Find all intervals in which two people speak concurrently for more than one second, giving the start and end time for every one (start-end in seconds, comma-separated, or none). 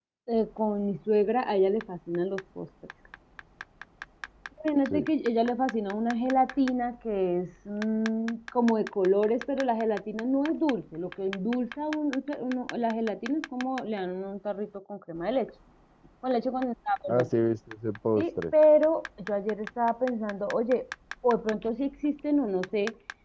none